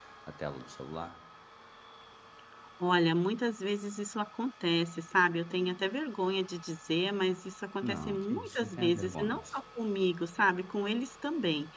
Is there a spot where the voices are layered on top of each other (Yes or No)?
Yes